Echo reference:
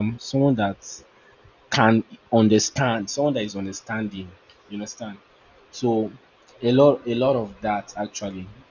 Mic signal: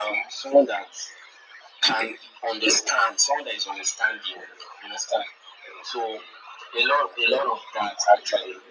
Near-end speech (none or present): none